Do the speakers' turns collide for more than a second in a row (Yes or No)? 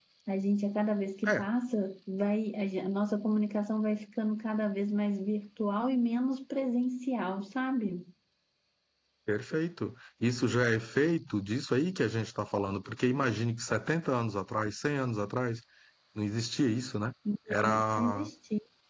No